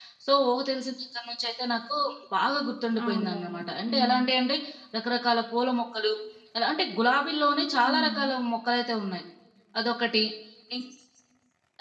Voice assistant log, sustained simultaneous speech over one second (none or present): present